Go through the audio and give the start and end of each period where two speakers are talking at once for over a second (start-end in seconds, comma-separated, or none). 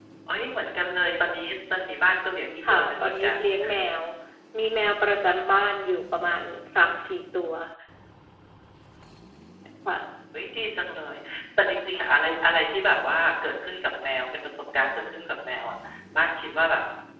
2.7-3.9